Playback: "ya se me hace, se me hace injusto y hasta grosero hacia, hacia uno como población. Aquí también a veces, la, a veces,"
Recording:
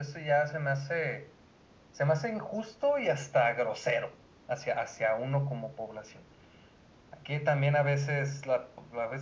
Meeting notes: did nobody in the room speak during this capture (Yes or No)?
Yes